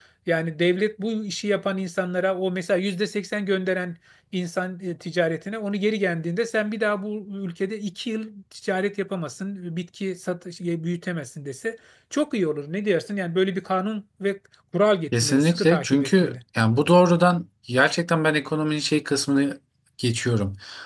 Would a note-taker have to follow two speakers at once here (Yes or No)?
Yes